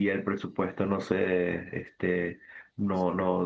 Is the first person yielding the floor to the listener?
No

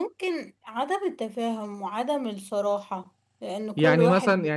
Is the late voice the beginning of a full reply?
Yes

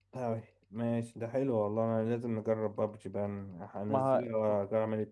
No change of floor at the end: Yes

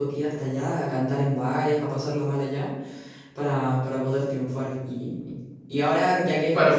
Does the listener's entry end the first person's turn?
No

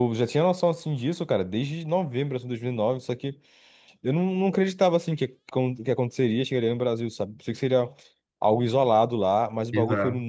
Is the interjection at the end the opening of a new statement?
No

